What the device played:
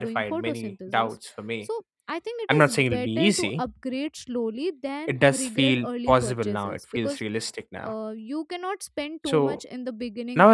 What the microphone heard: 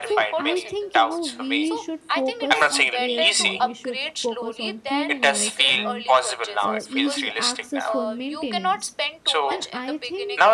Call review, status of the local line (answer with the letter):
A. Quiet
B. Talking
B